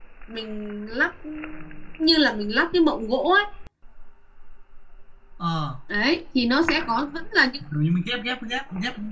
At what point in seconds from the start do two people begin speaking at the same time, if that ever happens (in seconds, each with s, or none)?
none